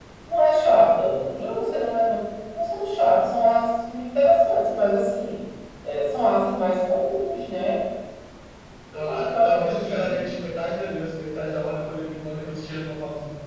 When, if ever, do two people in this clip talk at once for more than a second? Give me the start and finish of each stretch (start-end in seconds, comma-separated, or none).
8.9-10.3